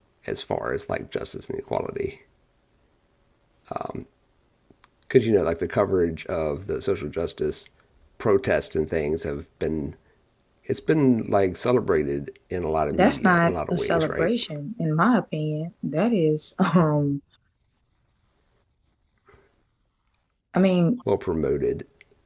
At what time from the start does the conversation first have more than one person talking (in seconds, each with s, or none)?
12.9 s